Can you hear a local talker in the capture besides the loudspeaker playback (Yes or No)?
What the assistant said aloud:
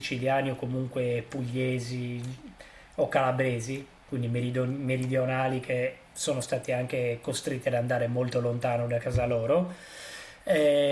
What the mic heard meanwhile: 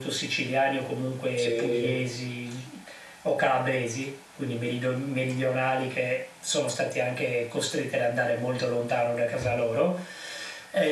Yes